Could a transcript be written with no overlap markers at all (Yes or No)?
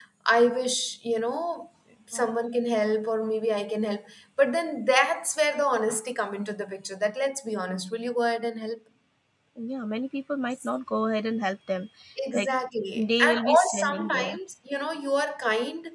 No